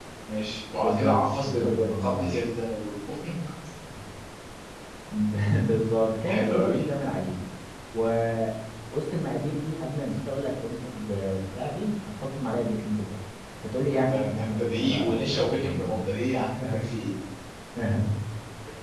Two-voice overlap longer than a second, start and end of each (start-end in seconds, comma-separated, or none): 0.8-2.4, 13.9-16.2